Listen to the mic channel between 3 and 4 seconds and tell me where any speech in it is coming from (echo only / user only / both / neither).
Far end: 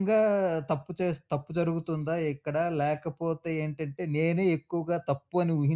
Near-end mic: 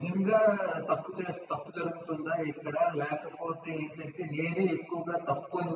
echo only